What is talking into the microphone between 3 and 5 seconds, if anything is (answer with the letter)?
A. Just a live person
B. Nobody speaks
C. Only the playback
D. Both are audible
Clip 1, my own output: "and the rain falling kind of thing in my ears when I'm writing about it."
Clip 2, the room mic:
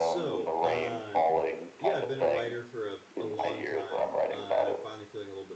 D